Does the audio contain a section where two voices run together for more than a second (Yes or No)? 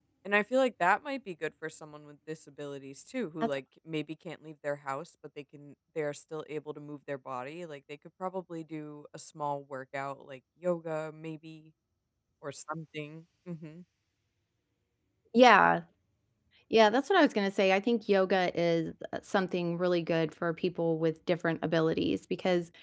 No